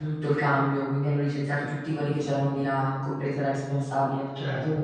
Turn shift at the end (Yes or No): No